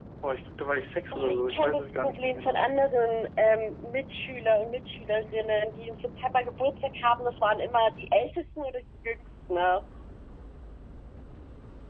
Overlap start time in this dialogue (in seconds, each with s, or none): 1.1 s